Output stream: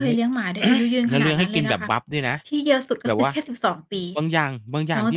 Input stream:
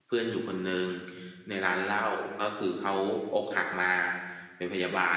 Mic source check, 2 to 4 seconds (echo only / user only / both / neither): user only